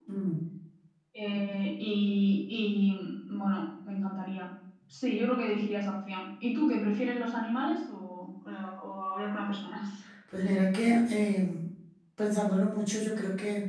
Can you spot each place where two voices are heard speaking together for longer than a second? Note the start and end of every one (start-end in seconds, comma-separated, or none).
none